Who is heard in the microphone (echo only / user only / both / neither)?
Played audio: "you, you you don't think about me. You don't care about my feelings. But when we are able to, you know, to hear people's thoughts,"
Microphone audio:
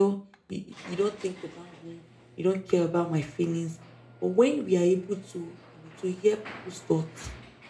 echo only